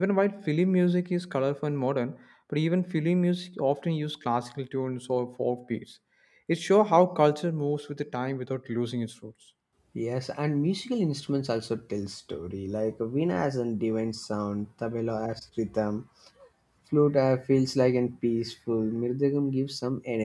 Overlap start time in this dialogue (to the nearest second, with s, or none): none